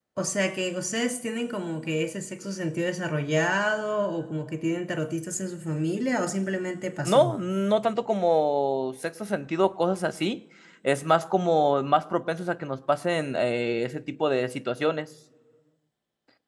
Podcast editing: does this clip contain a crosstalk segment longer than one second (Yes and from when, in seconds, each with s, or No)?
No